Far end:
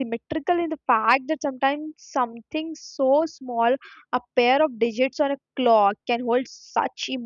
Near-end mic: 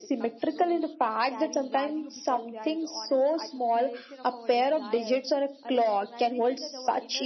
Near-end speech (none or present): present